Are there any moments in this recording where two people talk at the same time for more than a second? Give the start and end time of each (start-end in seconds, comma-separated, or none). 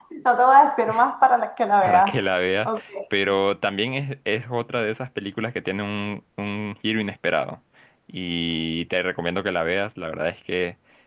none